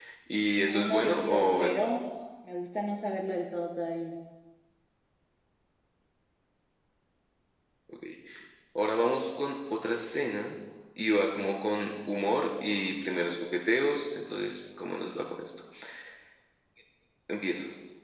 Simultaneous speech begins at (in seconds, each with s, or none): 0.7 s